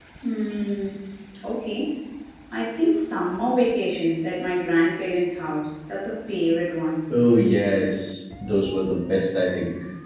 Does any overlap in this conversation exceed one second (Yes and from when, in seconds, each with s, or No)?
No